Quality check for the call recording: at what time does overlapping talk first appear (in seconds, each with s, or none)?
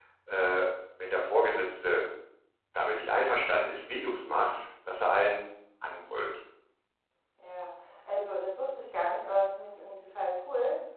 none